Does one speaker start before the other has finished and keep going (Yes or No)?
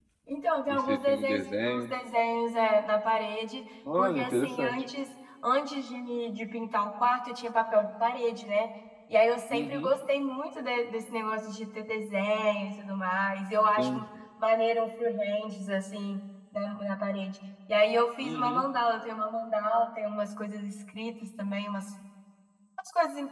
Yes